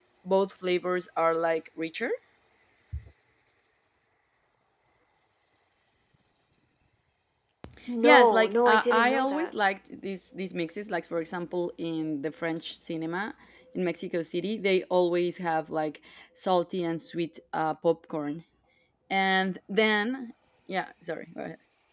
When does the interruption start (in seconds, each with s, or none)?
8.0 s